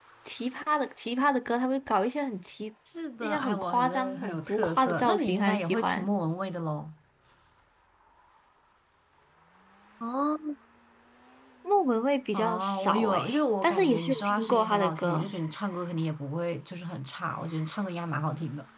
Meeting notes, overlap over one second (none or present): present